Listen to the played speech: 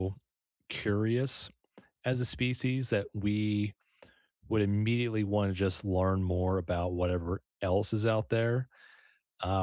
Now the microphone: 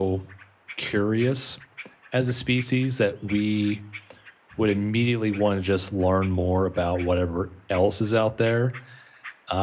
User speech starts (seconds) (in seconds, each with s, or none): none